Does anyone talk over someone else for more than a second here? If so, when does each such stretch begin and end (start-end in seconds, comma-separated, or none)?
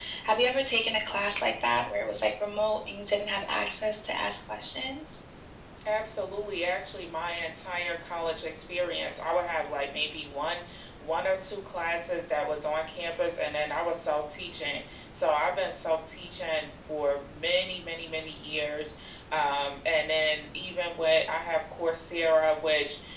none